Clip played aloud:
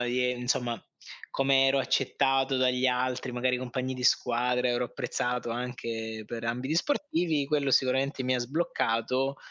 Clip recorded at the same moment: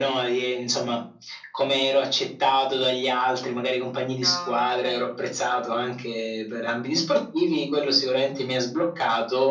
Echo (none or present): present